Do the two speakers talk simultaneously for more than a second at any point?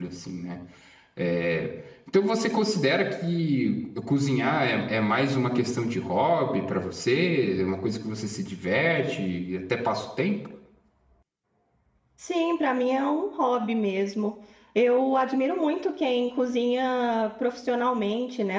No

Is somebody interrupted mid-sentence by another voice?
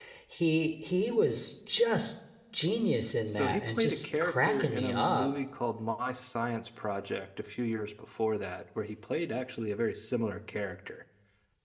Yes, from 3.2 s

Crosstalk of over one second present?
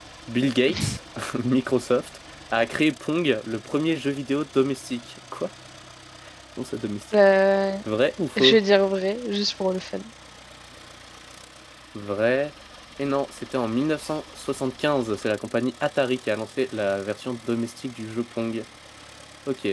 No

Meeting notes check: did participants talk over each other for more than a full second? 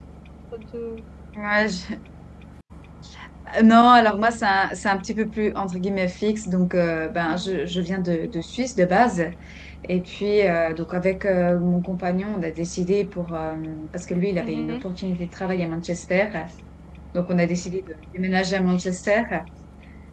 No

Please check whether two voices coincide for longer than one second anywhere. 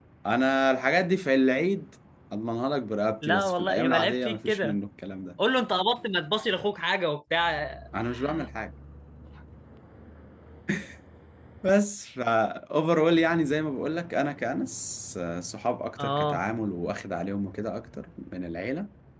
Yes, from 3.2 s

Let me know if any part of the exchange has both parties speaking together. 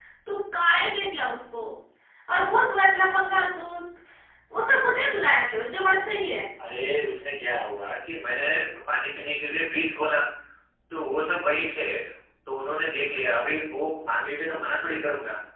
No

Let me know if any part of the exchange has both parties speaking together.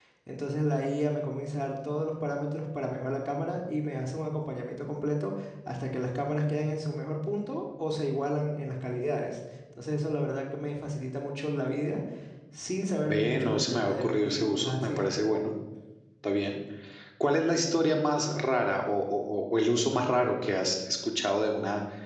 Yes, from 13.1 s

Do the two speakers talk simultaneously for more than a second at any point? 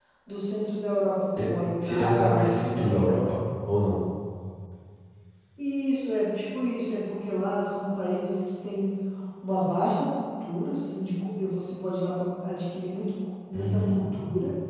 Yes, from 1.4 s

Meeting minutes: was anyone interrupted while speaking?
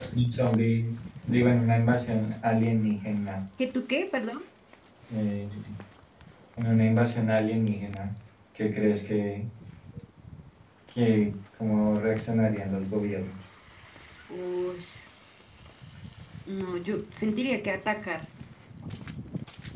No

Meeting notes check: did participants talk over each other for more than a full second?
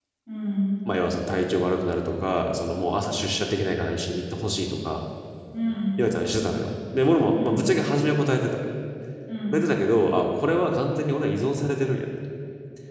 No

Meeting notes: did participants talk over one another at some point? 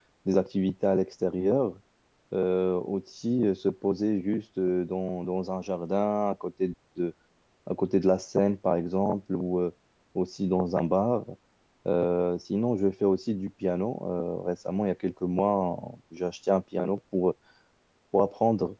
No

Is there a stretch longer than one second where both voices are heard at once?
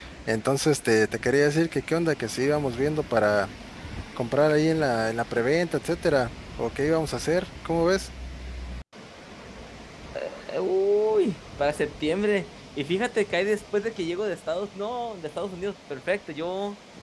No

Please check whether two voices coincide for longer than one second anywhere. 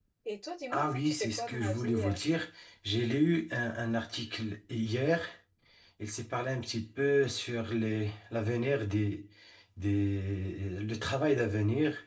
Yes, from 0.7 s

